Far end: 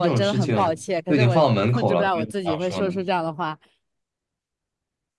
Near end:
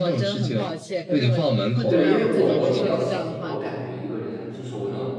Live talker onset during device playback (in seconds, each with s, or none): 1.9 s